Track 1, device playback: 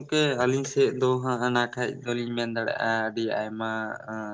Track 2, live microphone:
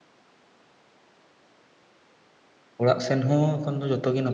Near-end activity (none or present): present